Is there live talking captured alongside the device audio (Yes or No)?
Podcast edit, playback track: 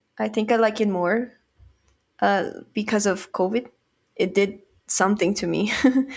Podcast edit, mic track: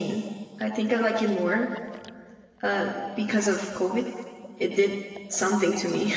No